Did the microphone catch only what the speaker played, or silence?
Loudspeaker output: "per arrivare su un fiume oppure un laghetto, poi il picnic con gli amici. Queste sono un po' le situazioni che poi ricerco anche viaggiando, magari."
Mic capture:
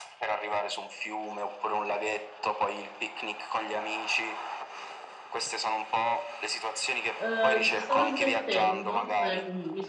No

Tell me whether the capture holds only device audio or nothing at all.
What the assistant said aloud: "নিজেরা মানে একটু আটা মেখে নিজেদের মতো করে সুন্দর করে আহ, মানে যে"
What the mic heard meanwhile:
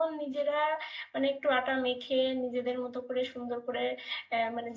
Yes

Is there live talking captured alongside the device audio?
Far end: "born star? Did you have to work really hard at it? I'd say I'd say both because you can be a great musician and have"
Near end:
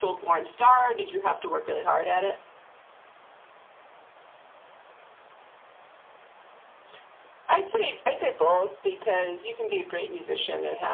No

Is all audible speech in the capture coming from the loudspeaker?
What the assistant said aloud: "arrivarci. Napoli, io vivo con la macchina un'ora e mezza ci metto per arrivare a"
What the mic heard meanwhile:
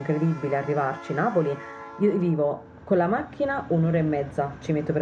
Yes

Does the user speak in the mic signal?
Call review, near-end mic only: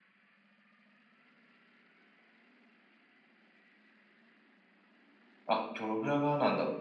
Yes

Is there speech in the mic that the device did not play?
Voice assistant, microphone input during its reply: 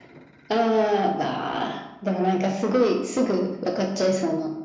No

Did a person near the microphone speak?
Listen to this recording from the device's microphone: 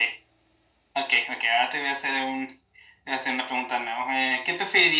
No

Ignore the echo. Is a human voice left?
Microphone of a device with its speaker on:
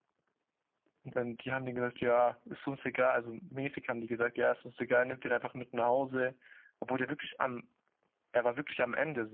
Yes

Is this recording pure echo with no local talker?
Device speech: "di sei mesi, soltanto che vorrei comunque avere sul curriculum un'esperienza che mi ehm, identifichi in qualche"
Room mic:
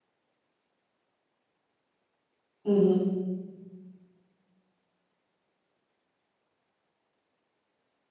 No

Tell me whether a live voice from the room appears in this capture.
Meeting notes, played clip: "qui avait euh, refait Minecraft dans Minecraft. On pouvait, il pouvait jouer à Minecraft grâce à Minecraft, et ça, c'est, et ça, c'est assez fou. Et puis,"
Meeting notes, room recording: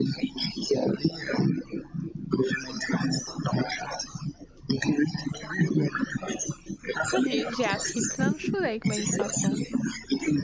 Yes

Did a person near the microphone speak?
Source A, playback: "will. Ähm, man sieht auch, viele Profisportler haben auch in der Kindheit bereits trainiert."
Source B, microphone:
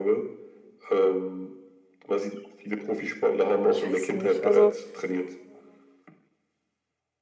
Yes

